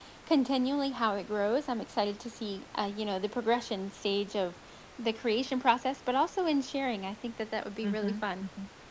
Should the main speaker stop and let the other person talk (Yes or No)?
Yes